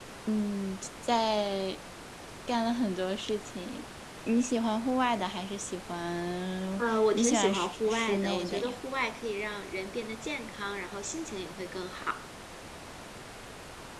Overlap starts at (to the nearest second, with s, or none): 7 s